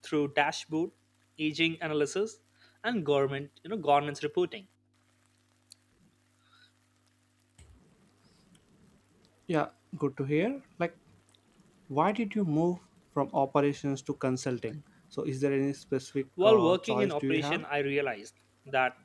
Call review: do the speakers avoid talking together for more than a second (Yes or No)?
No